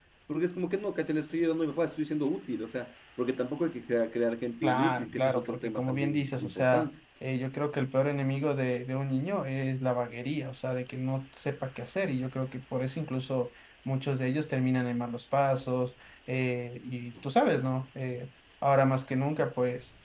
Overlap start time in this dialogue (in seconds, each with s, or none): 4.6 s